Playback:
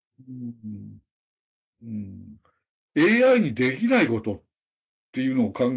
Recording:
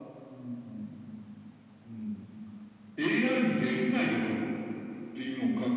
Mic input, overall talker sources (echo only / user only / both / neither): echo only